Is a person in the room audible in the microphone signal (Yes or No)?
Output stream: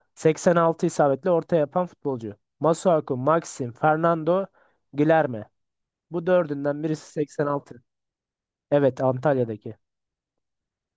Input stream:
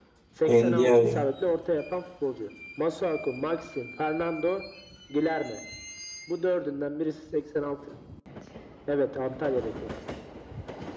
Yes